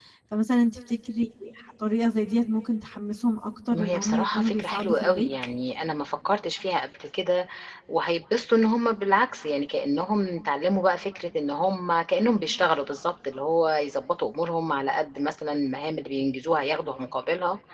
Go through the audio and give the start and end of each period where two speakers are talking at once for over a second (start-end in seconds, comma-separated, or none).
3.7-5.3